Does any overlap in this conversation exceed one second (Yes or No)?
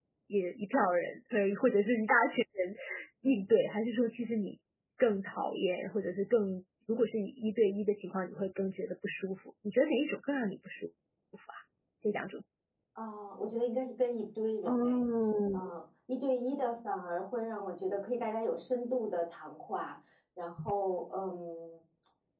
No